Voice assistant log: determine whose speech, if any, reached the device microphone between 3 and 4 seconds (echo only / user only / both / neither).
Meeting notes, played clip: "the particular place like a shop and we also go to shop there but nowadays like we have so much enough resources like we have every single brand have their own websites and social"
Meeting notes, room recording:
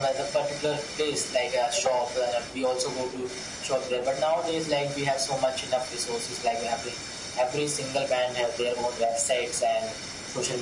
echo only